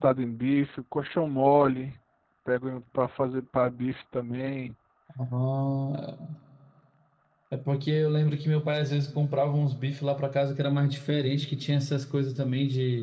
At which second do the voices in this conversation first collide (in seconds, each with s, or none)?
none